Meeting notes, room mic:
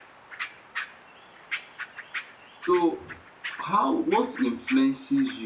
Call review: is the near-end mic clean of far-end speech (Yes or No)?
Yes